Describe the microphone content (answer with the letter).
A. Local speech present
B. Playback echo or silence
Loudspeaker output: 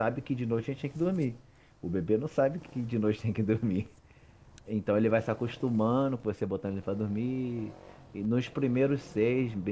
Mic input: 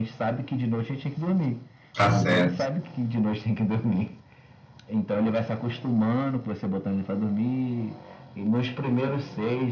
A